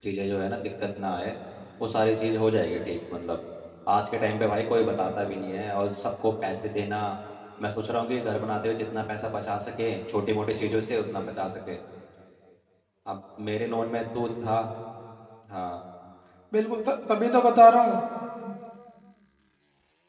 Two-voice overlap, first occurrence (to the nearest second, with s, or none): none